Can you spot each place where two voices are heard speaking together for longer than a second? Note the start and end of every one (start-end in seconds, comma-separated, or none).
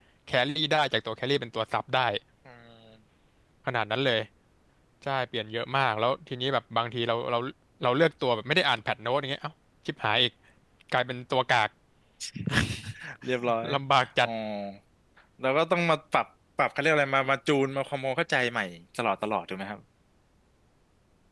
none